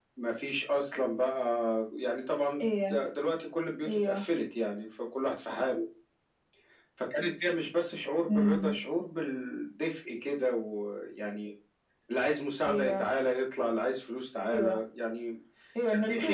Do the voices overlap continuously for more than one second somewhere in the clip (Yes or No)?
No